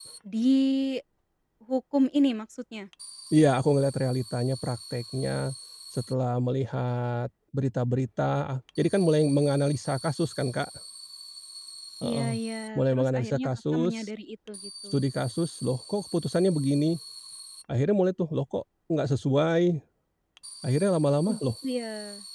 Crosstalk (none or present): present